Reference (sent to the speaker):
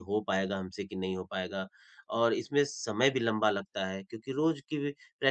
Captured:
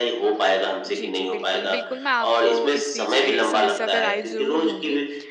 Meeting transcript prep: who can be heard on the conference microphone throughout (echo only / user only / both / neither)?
both